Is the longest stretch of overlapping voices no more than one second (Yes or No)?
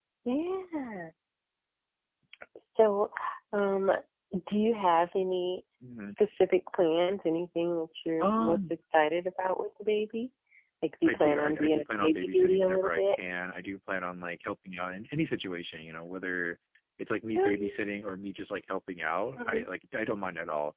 No